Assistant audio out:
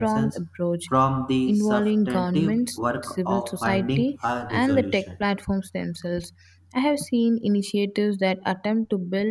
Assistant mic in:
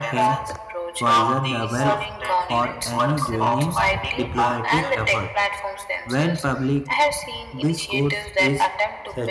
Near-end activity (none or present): present